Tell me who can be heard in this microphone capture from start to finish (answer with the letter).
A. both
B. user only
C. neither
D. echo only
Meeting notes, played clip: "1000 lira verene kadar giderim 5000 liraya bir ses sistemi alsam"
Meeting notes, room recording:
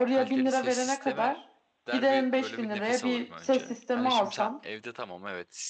A